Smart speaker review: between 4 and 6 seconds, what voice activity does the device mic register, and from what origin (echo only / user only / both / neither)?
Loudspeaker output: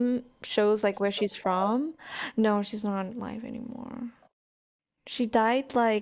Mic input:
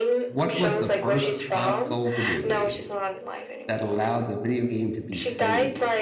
both